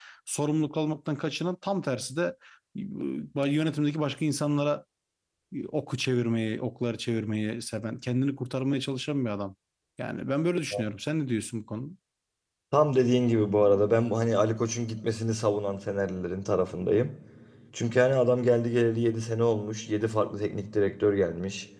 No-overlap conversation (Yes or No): Yes